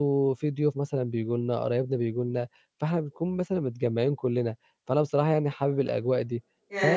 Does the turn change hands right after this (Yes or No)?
Yes